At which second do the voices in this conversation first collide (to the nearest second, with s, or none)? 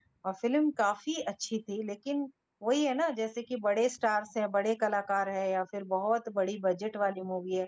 none